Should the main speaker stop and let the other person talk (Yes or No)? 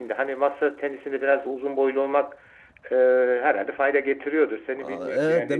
Yes